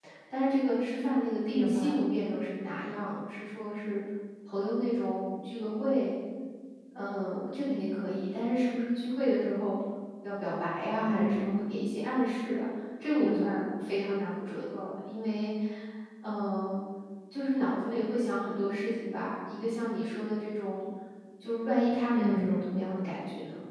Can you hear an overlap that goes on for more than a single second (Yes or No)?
No